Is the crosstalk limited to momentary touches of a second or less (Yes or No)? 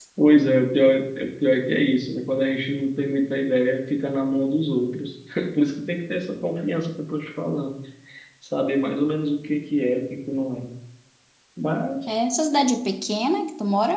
Yes